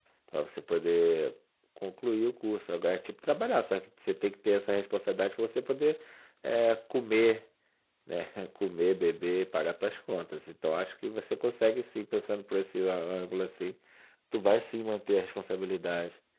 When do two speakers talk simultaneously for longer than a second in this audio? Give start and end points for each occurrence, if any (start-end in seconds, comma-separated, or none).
none